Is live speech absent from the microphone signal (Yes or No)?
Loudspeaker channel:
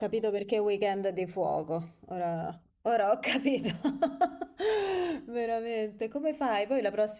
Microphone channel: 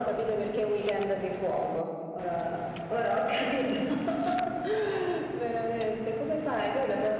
Yes